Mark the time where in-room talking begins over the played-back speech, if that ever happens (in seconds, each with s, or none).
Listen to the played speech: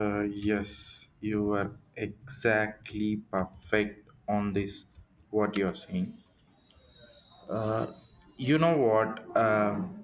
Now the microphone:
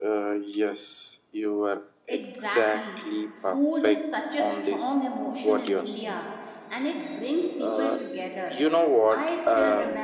2.1 s